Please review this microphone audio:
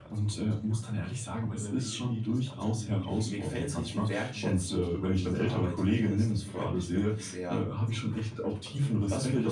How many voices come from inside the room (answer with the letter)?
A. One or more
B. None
A